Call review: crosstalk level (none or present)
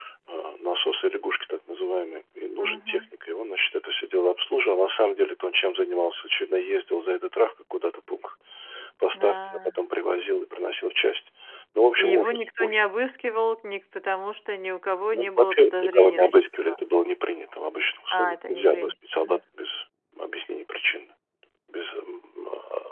present